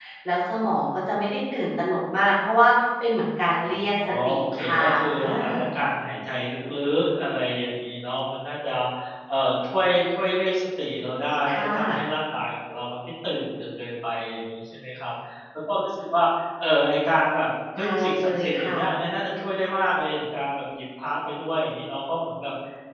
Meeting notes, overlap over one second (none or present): present